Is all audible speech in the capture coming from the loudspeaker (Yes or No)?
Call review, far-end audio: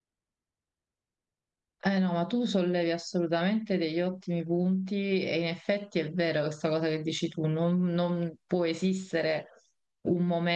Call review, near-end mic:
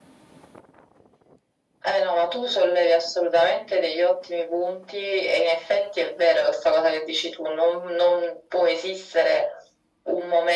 Yes